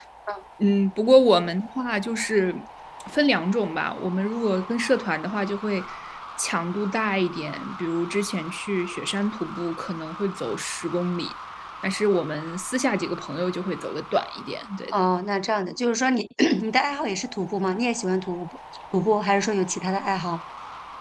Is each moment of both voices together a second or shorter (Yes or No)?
Yes